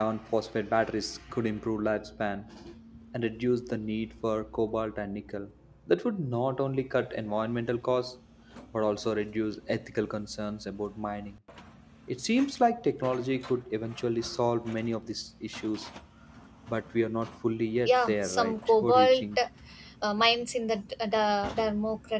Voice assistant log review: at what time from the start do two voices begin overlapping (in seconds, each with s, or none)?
17.9 s